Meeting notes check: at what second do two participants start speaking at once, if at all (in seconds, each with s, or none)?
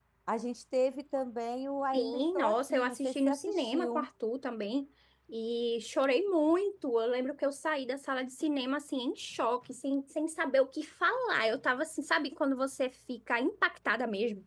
1.9 s